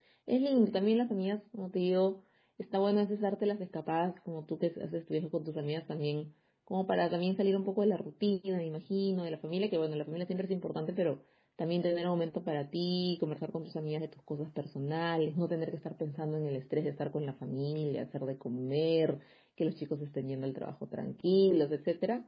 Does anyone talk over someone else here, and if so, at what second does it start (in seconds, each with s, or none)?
none